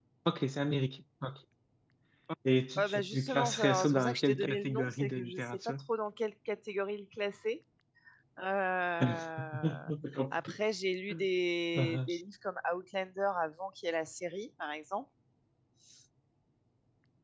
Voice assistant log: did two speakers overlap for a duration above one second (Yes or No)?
Yes